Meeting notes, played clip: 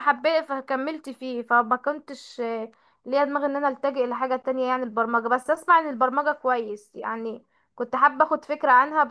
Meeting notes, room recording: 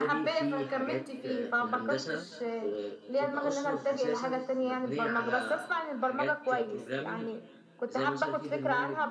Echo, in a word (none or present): present